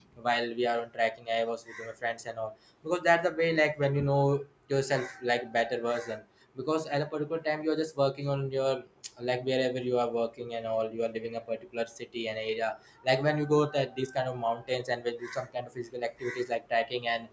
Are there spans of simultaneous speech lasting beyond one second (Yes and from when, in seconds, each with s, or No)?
No